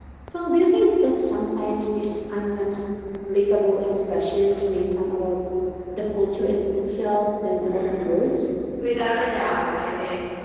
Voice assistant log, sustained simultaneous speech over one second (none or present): none